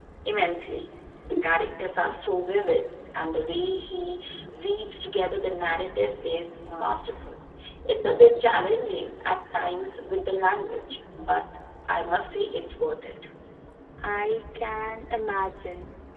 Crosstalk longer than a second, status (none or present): none